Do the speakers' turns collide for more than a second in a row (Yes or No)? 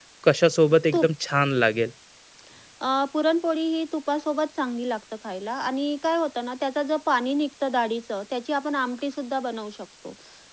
No